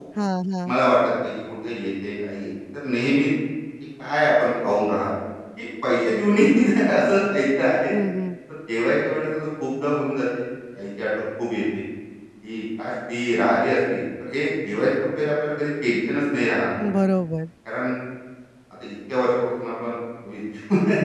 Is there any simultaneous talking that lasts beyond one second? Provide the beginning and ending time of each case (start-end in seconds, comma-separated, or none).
none